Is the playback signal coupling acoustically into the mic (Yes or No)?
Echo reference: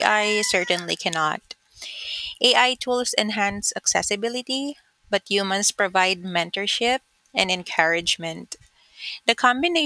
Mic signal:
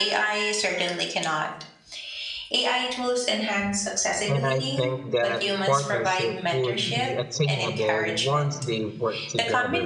Yes